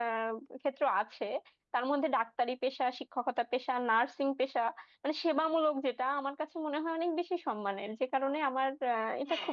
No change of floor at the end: No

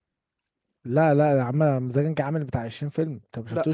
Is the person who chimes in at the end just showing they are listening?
Yes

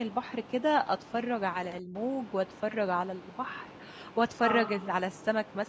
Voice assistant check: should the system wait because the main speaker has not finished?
Yes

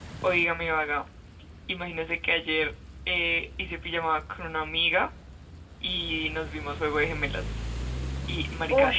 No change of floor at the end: Yes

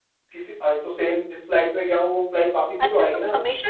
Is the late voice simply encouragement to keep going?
No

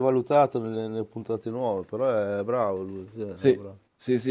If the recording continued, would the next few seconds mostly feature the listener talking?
Yes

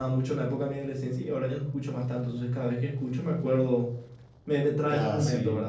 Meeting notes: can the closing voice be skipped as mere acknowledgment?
Yes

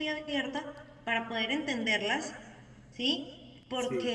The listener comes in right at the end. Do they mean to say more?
No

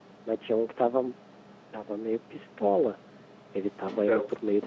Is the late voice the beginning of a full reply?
No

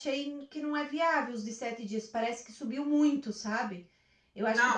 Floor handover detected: Yes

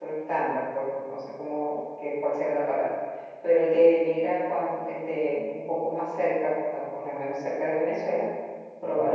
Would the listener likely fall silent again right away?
Yes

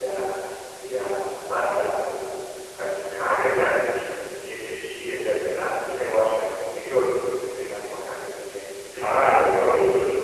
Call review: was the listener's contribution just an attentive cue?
No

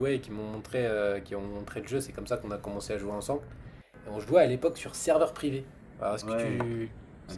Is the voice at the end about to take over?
Yes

